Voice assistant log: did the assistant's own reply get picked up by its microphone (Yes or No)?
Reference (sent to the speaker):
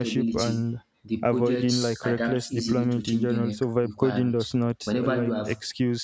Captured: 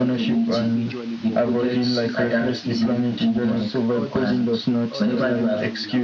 Yes